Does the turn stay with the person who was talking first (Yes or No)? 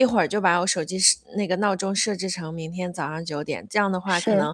Yes